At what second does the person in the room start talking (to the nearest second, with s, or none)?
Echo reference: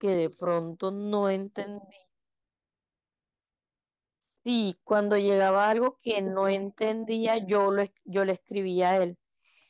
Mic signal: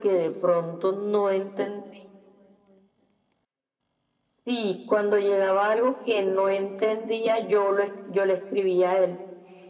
none